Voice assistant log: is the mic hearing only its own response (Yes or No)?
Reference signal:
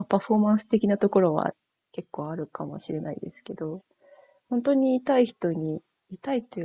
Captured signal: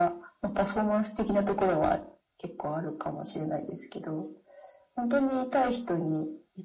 Yes